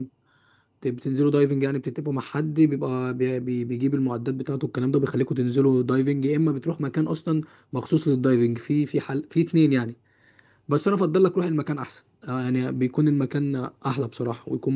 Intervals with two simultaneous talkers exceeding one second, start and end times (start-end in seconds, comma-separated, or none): none